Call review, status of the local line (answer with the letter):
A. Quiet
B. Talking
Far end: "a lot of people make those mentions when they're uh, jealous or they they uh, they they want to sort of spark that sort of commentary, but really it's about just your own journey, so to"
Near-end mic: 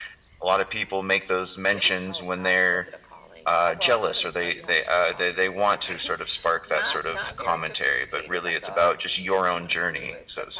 B